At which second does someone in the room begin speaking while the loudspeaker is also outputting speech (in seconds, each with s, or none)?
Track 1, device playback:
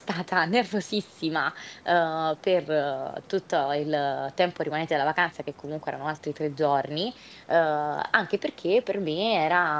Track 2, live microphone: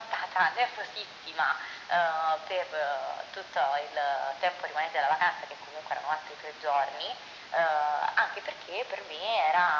none